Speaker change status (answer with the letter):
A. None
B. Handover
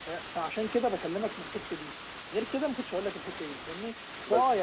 A